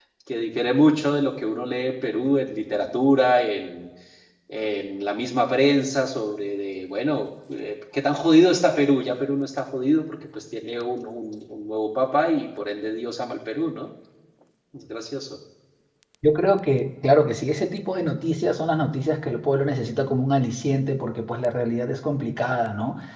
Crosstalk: none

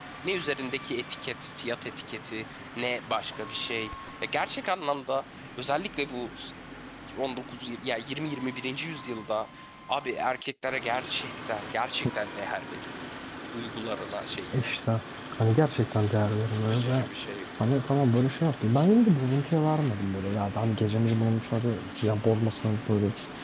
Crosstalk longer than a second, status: none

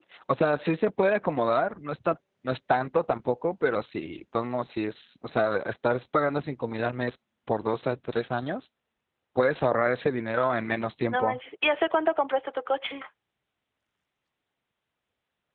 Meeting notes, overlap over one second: none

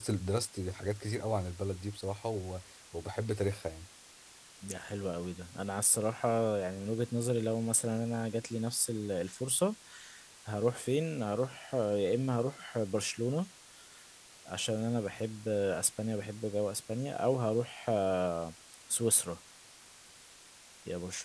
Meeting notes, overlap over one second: none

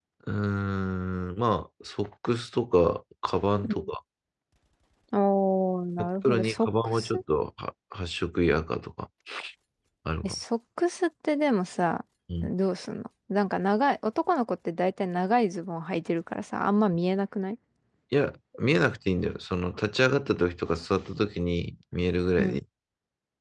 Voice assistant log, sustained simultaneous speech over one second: present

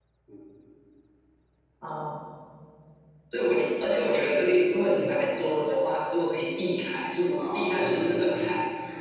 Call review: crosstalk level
present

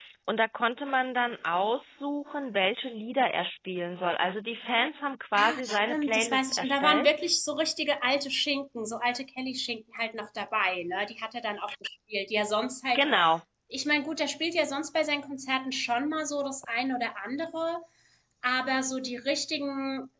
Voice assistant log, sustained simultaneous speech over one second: present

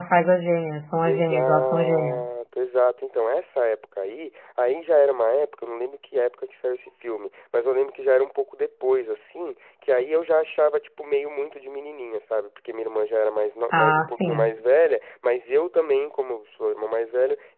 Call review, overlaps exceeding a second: present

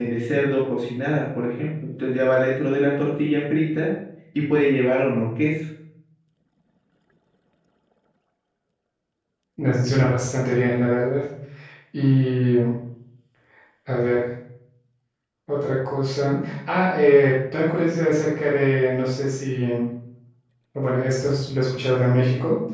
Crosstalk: none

